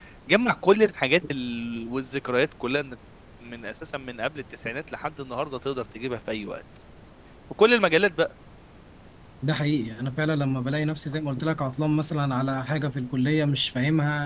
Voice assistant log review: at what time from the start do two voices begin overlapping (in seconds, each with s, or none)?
none